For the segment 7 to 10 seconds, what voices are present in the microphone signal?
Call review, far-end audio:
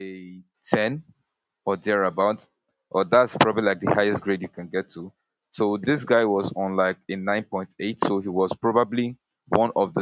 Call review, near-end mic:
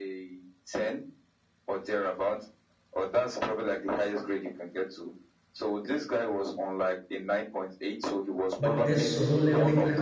both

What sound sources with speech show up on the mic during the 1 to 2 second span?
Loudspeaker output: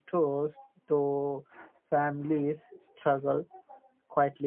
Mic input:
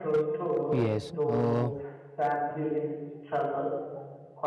both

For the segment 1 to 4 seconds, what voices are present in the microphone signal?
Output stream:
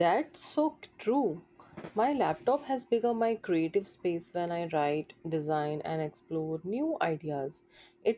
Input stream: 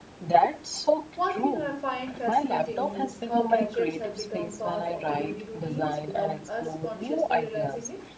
both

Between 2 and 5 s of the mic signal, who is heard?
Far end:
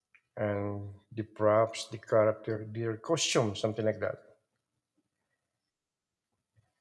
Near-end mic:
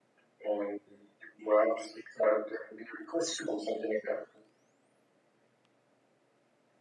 echo only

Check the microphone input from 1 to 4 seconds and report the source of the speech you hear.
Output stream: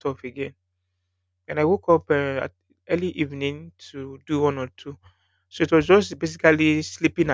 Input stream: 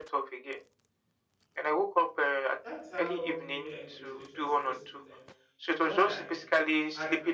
both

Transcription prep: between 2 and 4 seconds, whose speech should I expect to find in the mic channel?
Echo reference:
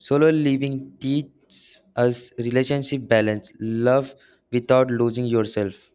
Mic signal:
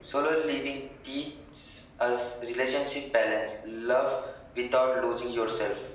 echo only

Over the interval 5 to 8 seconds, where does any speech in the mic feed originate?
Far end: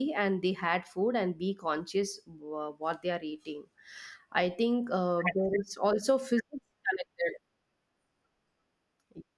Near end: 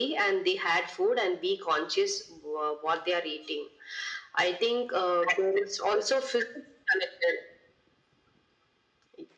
echo only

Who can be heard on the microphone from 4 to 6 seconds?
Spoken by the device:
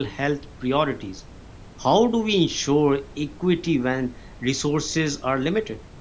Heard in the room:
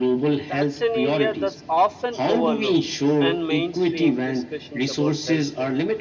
both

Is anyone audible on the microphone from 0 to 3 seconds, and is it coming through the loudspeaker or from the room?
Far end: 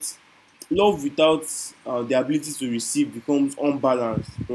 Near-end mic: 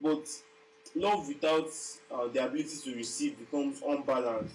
echo only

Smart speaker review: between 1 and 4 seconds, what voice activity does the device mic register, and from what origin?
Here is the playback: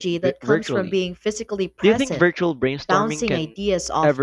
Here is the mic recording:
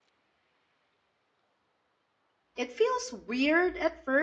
user only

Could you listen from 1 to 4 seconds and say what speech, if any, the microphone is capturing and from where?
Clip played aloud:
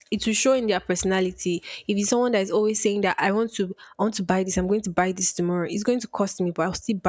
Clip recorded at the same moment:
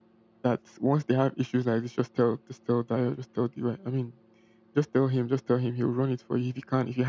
user only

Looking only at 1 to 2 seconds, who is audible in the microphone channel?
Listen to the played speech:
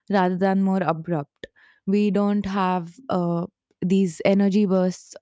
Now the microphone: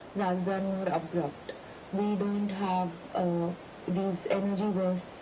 echo only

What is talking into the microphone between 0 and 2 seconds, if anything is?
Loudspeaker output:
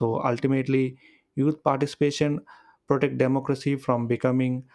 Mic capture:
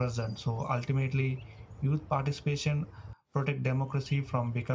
echo only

